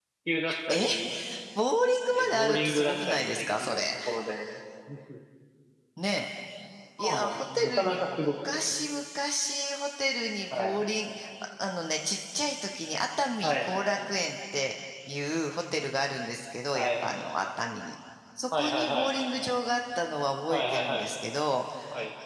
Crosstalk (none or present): present